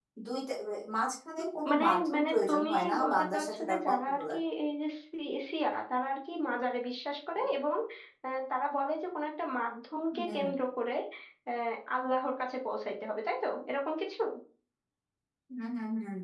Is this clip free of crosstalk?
No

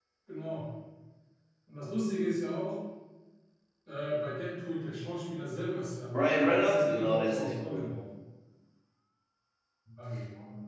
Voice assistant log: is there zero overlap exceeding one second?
No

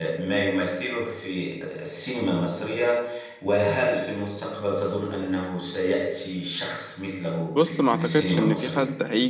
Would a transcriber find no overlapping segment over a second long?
No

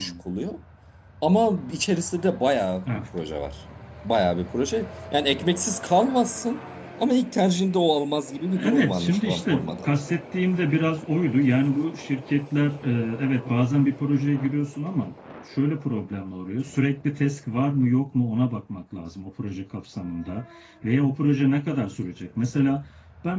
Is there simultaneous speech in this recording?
Yes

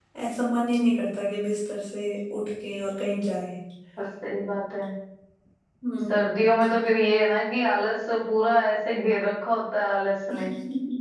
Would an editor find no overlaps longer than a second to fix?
Yes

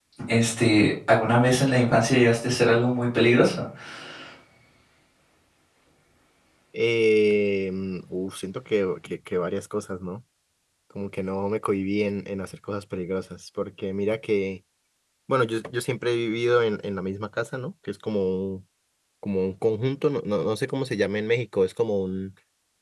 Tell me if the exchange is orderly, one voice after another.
Yes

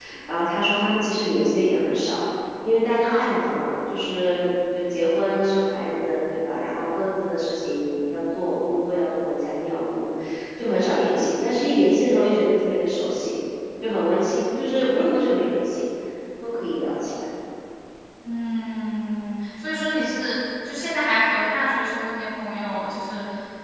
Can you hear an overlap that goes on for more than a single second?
No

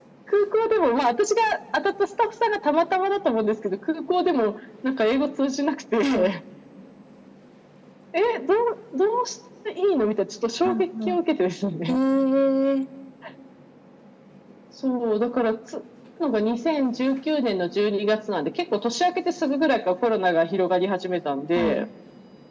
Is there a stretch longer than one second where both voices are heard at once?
No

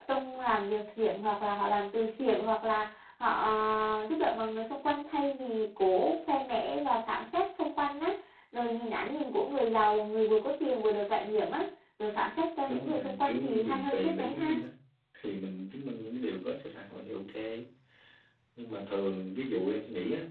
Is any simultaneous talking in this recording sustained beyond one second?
Yes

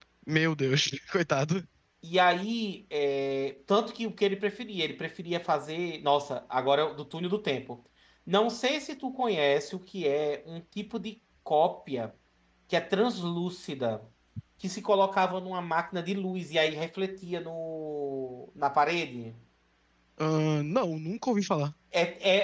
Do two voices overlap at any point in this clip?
No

